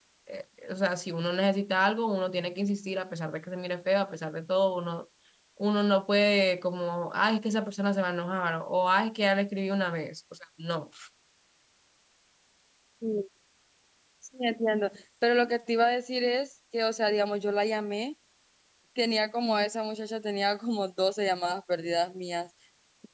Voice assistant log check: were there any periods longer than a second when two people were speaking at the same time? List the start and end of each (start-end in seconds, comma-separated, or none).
none